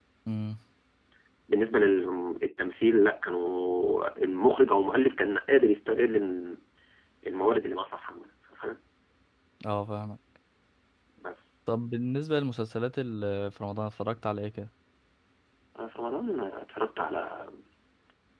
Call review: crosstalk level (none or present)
none